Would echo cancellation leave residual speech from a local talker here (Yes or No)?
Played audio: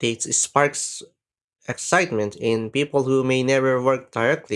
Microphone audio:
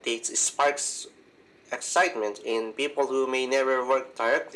No